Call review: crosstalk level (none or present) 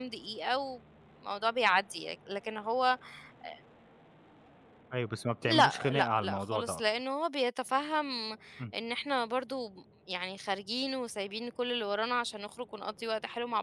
present